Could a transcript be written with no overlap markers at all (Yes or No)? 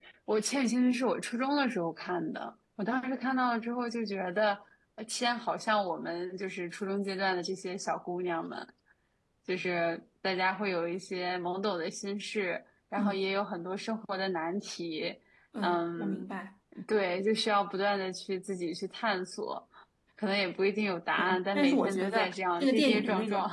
No